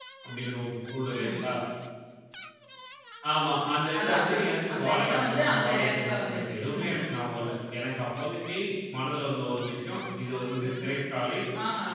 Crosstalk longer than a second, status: present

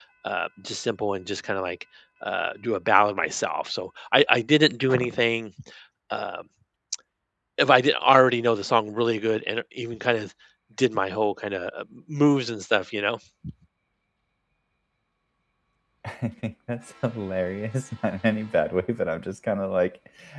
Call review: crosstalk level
none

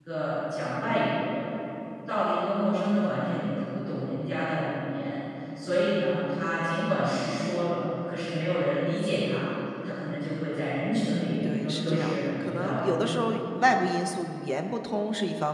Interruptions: present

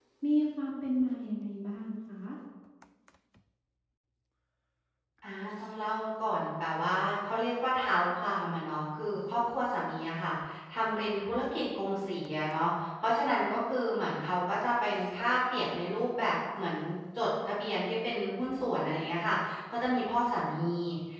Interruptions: none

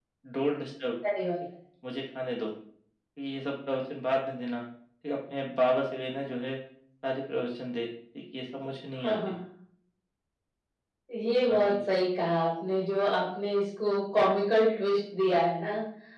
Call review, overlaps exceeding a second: none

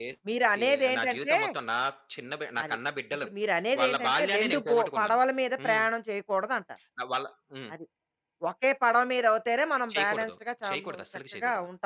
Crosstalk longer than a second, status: present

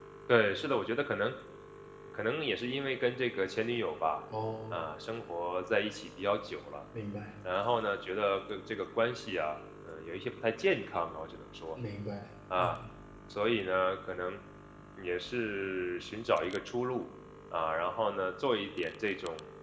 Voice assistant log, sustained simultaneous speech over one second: none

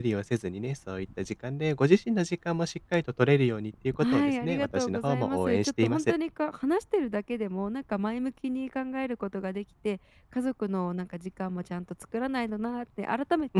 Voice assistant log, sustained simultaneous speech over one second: present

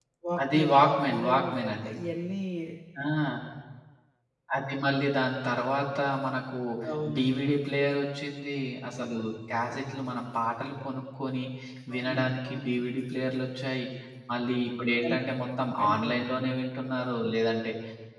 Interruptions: present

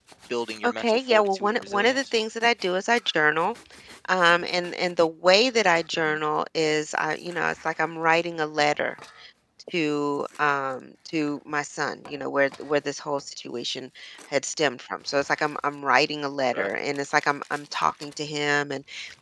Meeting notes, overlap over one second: present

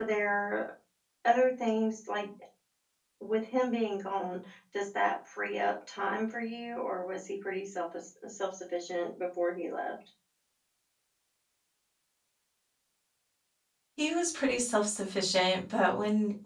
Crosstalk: none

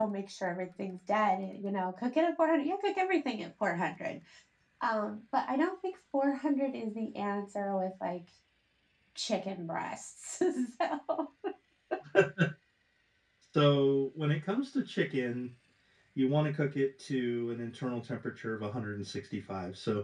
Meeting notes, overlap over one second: none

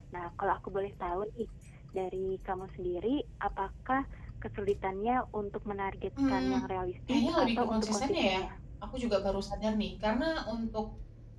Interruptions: present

